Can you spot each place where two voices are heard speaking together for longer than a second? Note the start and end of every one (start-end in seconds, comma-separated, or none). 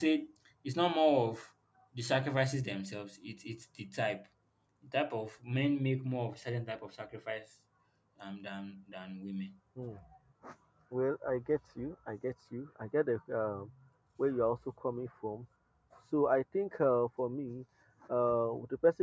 none